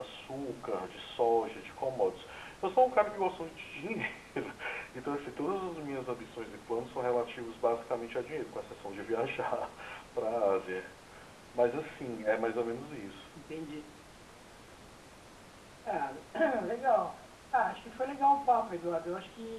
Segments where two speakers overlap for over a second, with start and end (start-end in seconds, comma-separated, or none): none